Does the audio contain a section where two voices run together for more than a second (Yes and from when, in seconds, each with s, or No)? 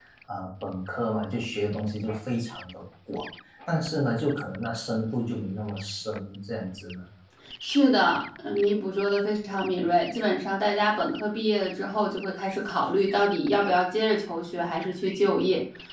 No